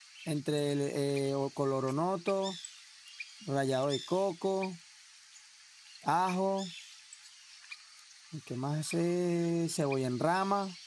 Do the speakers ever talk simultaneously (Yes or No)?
No